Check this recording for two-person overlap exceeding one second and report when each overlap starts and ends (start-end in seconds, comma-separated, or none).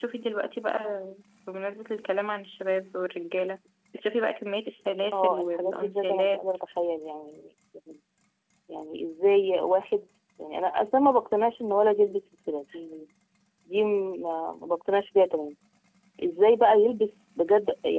5.1-6.4